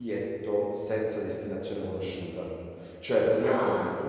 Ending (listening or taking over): listening